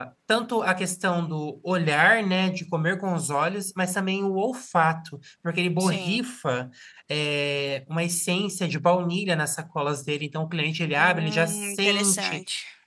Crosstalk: present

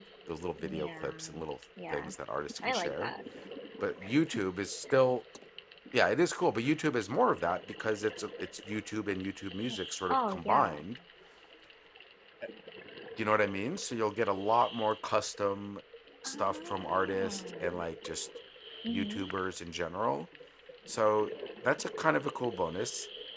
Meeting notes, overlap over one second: present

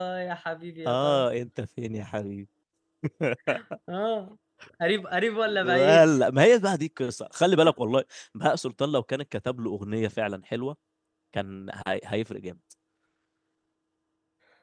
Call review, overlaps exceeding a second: none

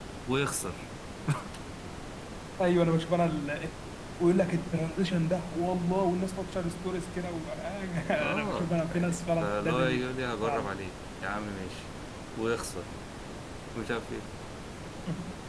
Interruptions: present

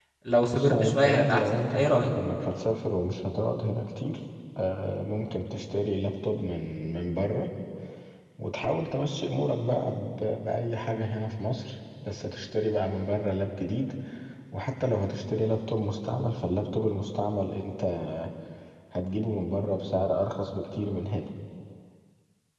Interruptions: present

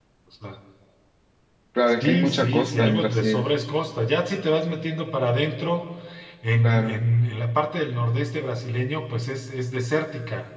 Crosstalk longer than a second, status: present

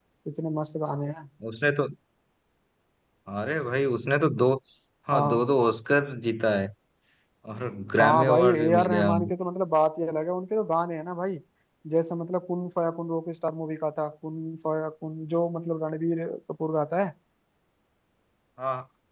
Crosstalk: present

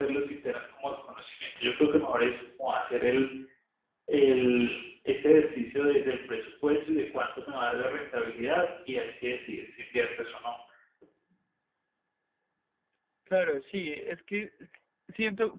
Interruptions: none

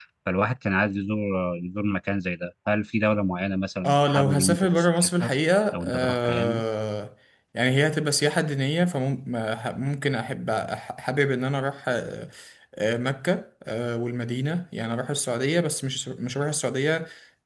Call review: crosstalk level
present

